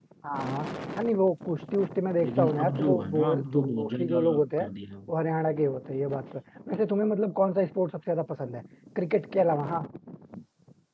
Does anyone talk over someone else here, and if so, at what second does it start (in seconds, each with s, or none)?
2.2 s